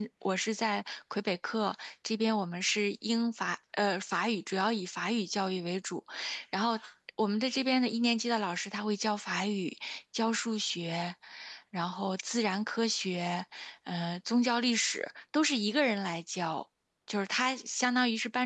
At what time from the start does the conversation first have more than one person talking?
none

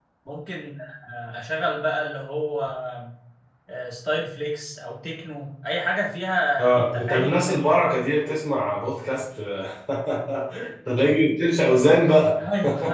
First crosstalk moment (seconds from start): 6.6 s

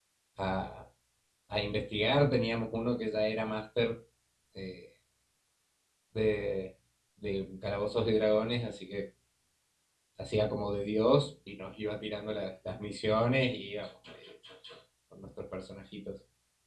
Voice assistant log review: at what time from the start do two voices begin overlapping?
none

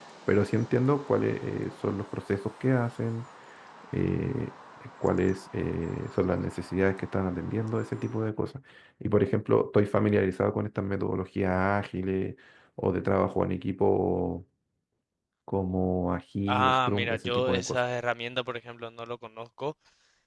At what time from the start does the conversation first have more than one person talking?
16.5 s

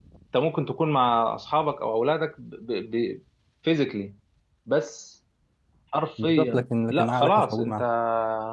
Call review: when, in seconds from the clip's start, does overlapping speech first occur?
6.2 s

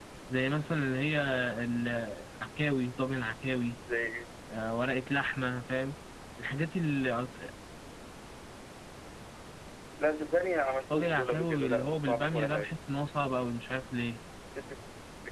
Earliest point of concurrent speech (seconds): 10.9 s

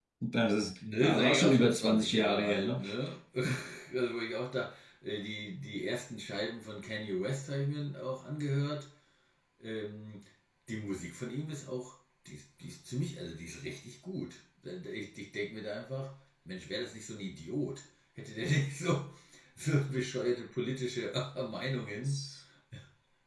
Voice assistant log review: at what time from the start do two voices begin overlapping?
1.0 s

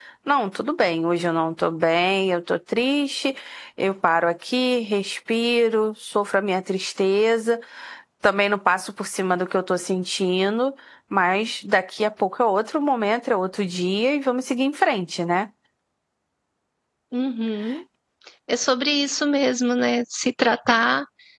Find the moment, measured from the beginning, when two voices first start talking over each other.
none

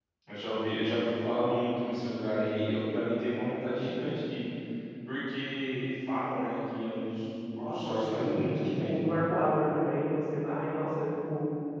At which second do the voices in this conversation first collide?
7.6 s

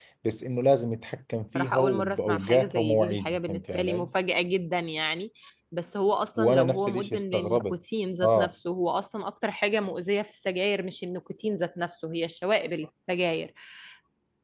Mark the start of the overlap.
1.6 s

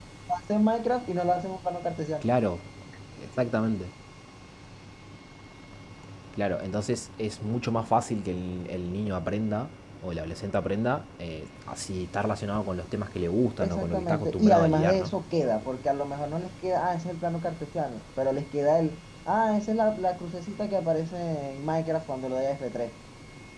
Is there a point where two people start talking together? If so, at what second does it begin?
13.6 s

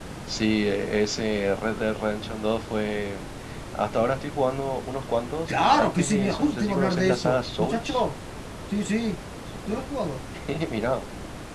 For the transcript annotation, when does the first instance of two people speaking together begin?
5.5 s

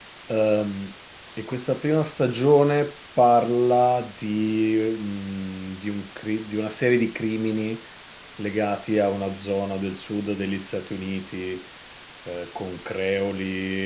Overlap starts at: none

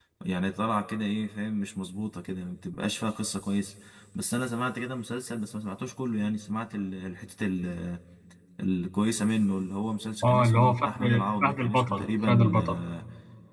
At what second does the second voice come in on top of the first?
10.2 s

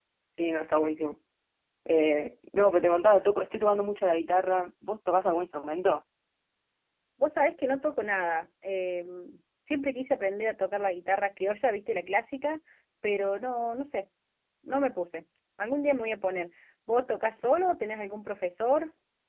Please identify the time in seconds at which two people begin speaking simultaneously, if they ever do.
none

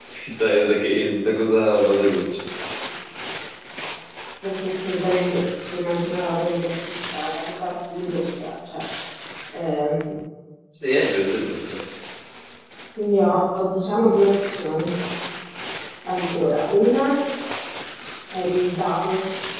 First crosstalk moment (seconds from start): none

